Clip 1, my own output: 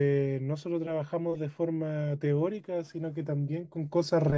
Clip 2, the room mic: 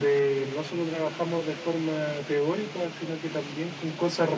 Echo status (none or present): present